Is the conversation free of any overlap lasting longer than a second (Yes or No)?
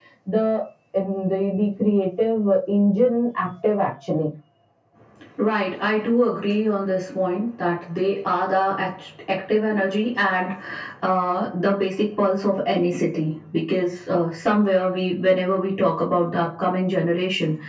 Yes